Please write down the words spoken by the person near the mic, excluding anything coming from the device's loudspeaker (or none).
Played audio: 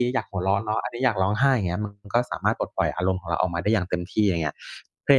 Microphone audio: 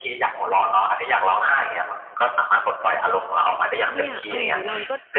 เนี่ยเอ่อเราก็